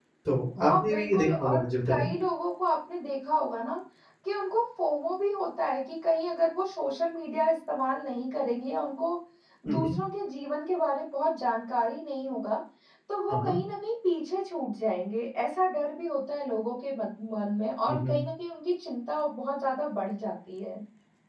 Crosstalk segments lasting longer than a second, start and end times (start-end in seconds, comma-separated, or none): 0.7-2.1